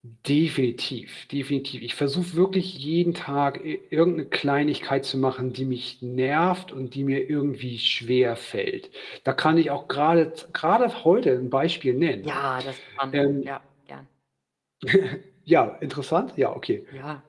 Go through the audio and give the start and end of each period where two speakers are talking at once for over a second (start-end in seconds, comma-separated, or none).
none